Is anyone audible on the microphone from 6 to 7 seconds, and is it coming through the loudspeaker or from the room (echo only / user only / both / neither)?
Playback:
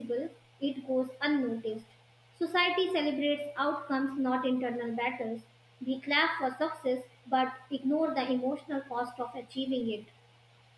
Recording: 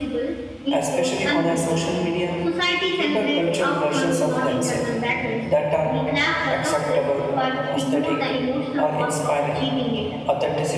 both